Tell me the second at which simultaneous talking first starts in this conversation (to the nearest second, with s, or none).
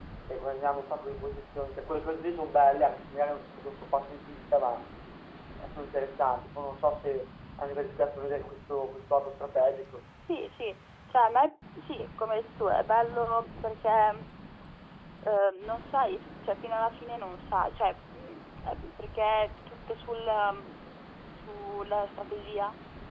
none